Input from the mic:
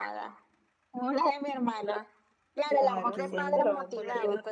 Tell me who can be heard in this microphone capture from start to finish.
both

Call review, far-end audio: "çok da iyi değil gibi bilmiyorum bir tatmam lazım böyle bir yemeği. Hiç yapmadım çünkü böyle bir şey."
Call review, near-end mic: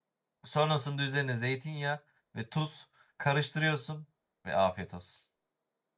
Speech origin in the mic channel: user only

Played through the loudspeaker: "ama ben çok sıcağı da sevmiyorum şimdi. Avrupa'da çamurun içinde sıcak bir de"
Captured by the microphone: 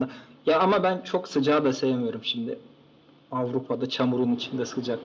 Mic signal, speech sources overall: echo only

